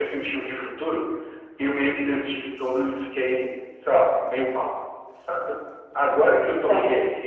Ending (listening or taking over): listening